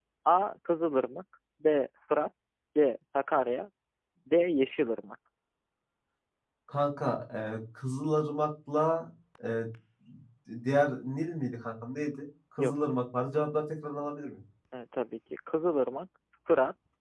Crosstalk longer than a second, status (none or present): none